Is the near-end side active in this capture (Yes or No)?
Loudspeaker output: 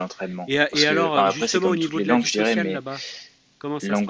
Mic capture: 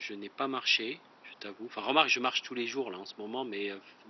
Yes